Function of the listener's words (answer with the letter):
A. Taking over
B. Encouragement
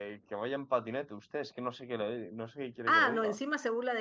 A